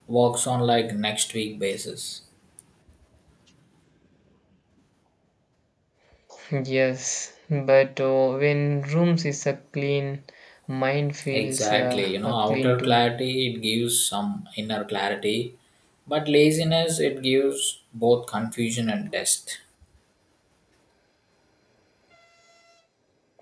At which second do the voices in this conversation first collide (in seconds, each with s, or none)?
11.3 s